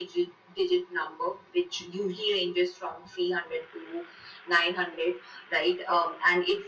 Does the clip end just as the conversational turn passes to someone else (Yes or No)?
No